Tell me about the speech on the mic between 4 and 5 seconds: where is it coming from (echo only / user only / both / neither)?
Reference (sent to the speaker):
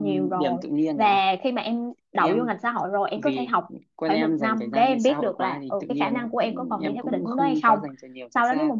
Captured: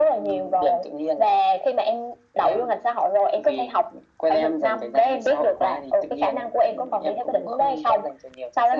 echo only